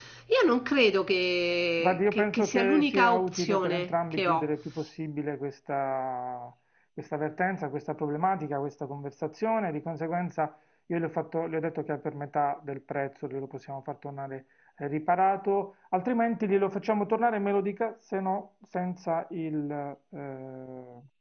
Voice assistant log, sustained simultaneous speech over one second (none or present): present